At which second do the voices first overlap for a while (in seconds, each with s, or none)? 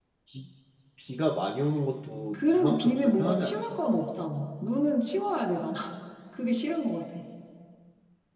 2.3 s